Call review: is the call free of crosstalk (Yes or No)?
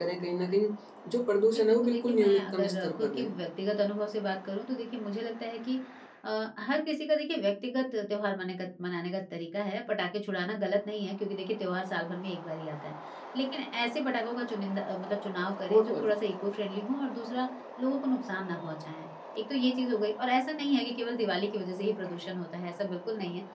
No